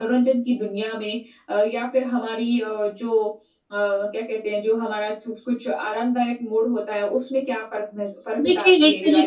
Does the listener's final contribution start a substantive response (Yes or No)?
Yes